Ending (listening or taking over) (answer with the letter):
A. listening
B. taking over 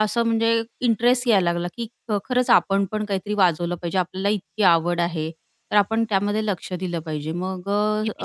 B